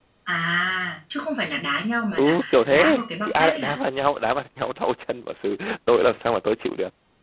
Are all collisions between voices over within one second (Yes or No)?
No